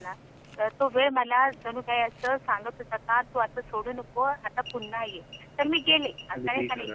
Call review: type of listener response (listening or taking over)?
listening